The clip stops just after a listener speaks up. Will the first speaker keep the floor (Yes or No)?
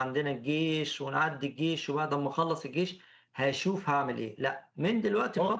Yes